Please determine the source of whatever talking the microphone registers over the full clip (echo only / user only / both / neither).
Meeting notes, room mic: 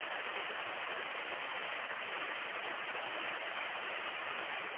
neither